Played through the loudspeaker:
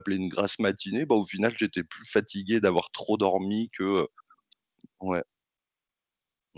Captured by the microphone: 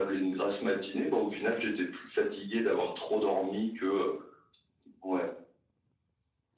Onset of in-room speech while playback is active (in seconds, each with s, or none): none